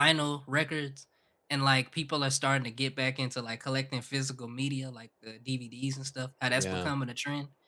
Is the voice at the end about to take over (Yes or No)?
No